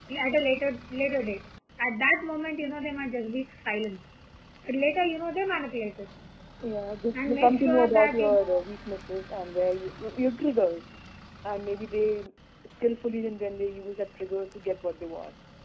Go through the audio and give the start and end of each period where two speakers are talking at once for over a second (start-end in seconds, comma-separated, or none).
7.2-8.6